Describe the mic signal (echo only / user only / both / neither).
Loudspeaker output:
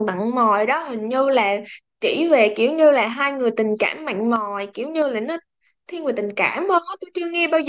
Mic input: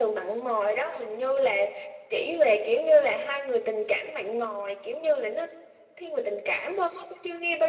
echo only